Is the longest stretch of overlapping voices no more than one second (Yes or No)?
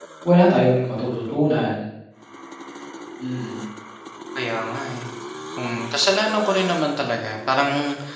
Yes